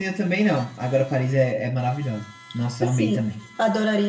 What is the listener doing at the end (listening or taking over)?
taking over